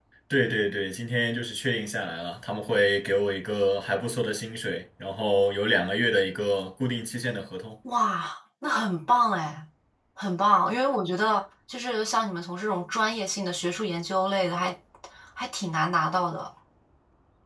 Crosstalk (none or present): none